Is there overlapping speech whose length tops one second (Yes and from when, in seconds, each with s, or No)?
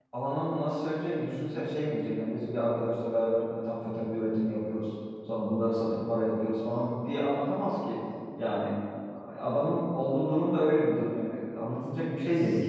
No